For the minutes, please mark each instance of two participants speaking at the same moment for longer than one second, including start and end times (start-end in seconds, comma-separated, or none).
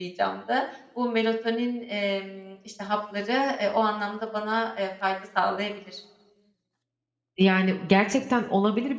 none